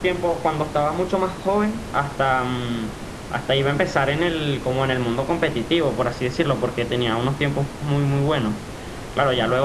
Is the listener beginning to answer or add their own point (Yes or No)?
No